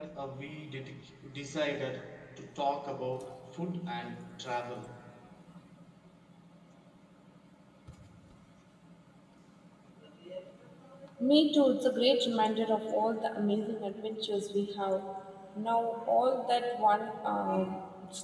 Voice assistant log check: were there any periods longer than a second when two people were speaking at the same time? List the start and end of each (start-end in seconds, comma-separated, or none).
none